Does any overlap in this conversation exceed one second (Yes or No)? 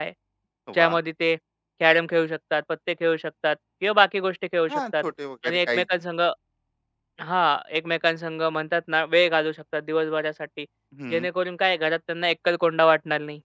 No